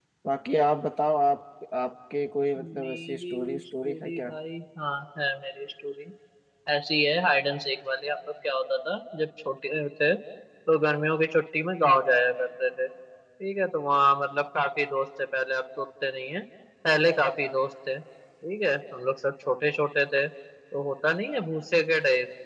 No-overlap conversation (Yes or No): No